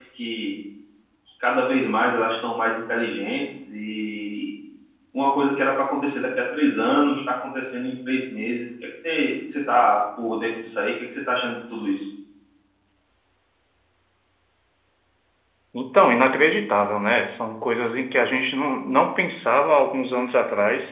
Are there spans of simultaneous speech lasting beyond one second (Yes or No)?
No